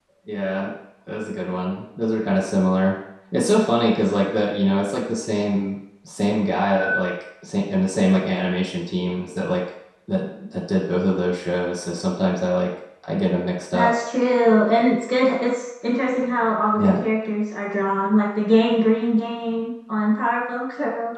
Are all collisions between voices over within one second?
Yes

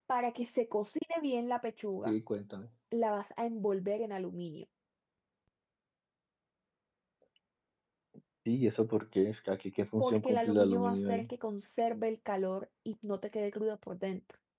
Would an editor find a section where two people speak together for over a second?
Yes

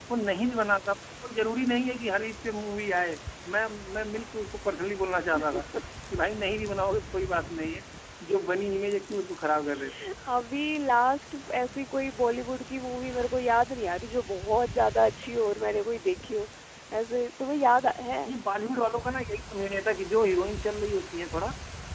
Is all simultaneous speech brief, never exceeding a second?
Yes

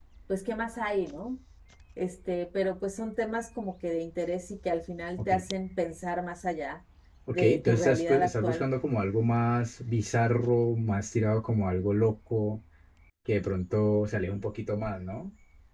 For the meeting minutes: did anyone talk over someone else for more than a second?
Yes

